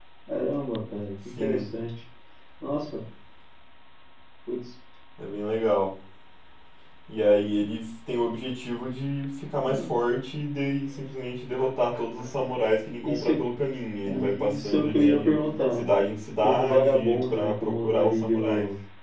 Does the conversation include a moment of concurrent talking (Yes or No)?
Yes